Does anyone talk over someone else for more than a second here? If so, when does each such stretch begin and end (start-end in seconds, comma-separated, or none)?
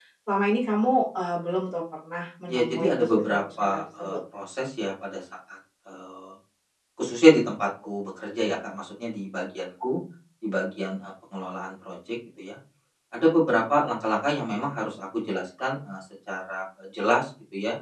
2.5-4.2